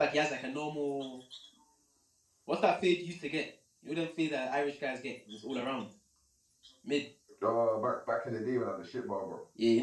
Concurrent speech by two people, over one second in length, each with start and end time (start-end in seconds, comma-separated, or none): none